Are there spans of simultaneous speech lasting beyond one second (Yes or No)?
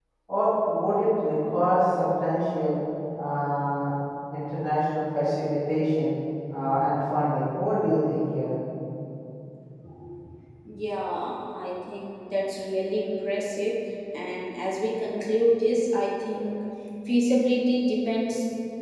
No